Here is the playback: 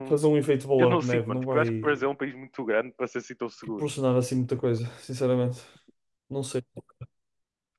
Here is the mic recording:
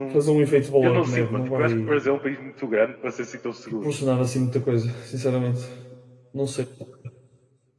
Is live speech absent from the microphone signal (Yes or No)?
Yes